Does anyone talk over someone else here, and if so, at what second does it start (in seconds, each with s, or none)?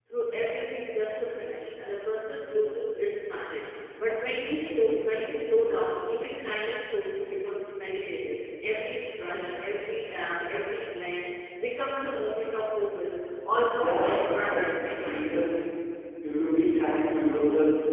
13.8 s